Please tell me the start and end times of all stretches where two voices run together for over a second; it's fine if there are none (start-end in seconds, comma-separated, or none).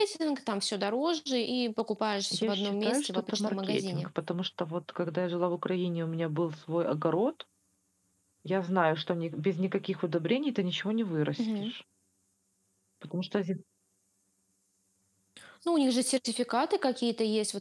2.4-4.1